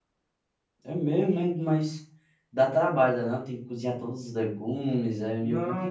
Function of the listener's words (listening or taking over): taking over